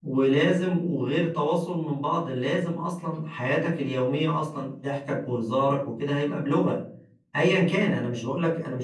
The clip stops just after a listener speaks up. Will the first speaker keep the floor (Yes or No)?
Yes